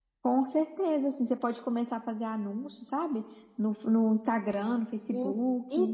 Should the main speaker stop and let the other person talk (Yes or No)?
Yes